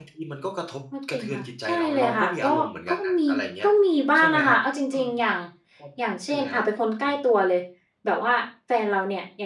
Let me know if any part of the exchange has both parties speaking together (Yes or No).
Yes